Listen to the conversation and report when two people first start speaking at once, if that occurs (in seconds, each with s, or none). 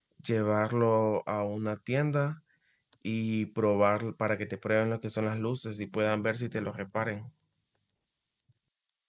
none